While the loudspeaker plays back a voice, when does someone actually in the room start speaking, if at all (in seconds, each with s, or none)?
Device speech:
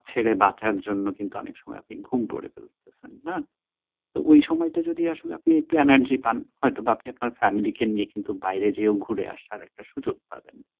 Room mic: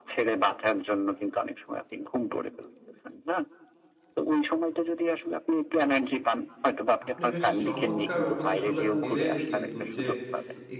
7.1 s